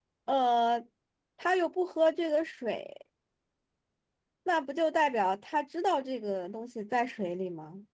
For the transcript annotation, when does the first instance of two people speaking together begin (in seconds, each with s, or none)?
none